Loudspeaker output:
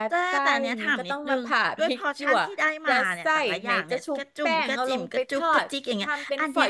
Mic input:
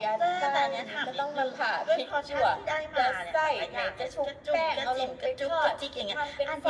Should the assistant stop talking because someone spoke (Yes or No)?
No